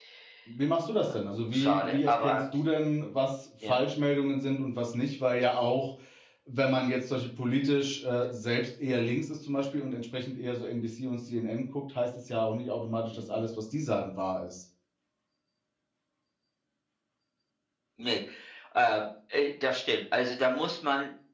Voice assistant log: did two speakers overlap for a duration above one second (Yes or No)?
Yes